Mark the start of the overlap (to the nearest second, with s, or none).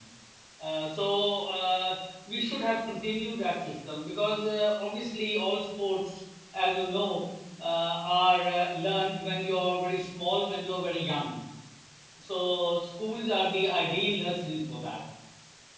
none